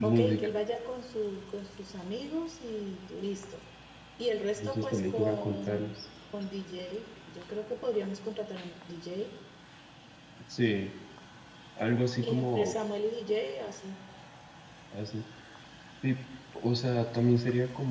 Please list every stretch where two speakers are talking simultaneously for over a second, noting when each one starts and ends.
4.6-5.8

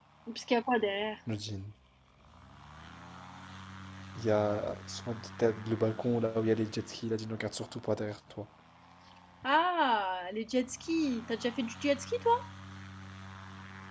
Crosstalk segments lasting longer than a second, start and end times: none

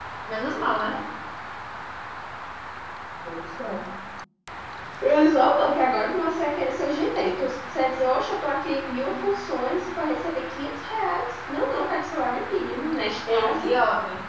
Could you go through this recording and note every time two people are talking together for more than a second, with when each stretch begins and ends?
none

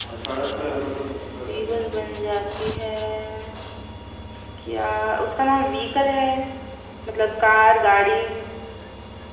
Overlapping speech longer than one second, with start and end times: 0.7-2.1

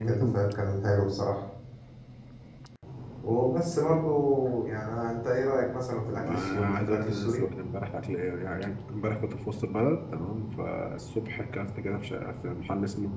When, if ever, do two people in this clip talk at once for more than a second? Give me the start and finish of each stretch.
6.2-7.4

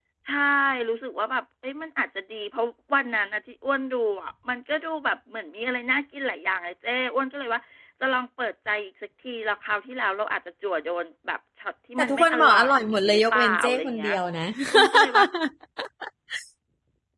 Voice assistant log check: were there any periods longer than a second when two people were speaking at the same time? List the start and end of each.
12.0-14.1

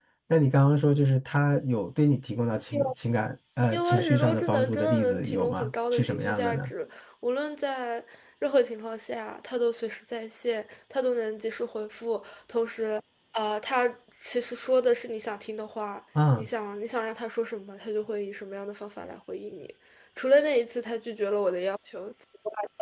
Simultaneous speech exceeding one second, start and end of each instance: 3.7-6.7

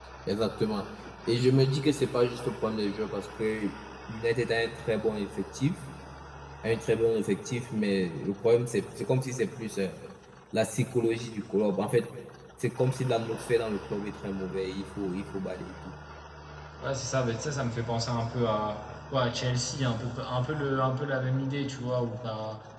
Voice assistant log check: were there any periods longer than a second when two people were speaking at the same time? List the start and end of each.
none

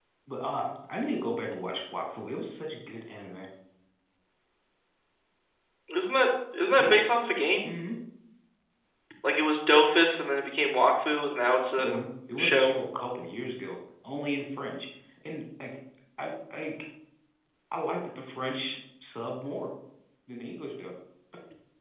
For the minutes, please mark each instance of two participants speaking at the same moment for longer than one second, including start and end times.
none

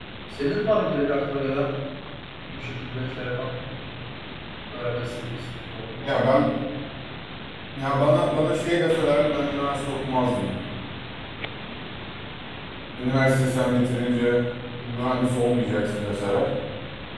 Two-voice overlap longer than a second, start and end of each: none

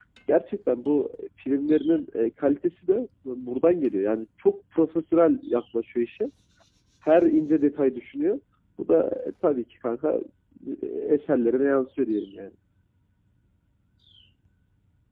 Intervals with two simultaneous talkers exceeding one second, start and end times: none

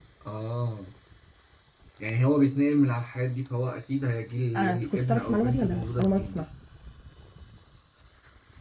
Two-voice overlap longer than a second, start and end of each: 4.6-6.4

